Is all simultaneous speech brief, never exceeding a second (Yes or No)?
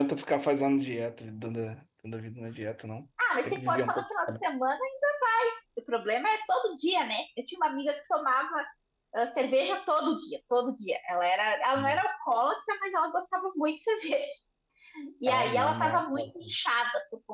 No